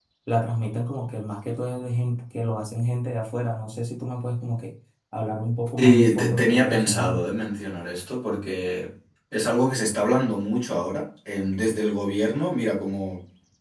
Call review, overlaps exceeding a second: present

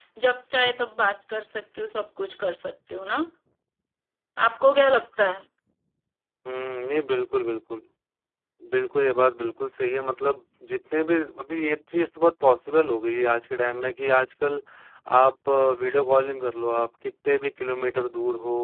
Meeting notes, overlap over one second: none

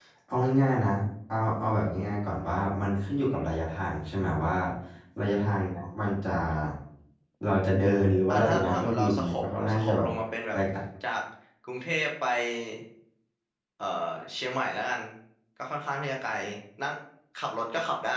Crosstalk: present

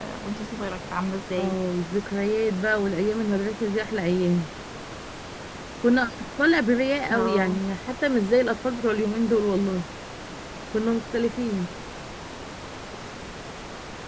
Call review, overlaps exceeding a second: none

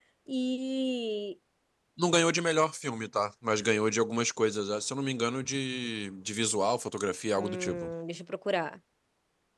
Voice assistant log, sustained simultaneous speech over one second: none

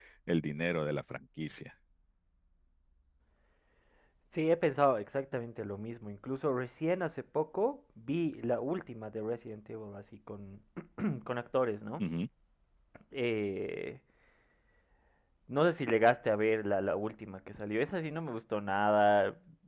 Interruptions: none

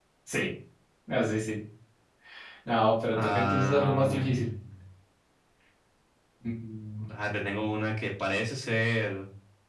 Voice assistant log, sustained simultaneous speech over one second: present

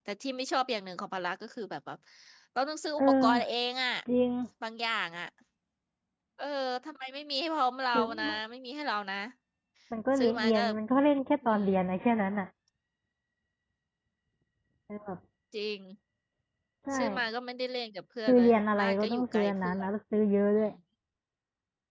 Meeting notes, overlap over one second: present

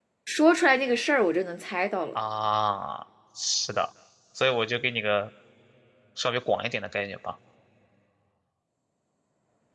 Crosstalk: none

